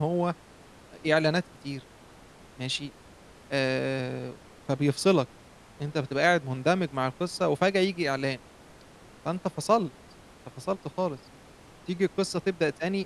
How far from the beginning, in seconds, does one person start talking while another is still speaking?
none

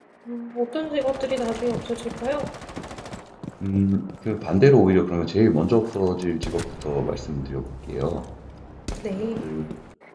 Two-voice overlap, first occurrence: none

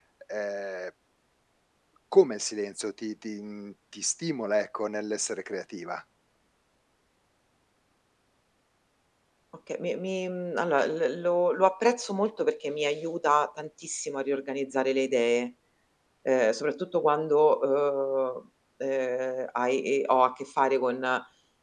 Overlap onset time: none

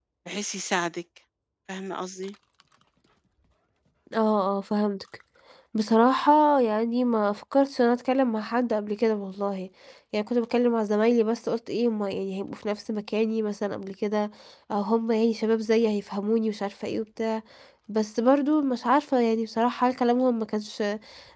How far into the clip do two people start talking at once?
none

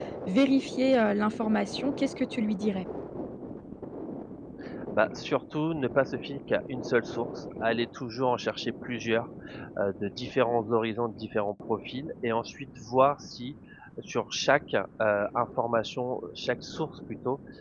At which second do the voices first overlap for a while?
none

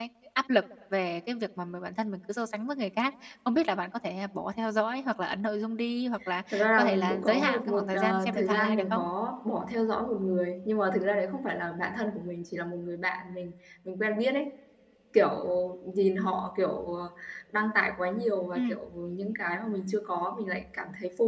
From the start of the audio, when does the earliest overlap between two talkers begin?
6.5 s

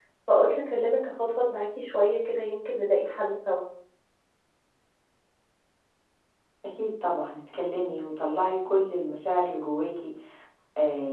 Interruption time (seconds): none

